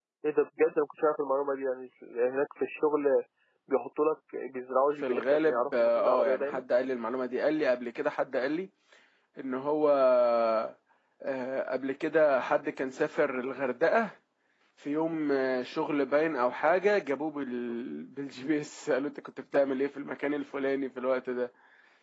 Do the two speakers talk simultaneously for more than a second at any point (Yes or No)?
Yes